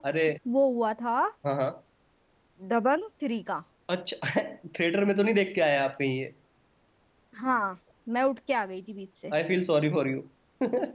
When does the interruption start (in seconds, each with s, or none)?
none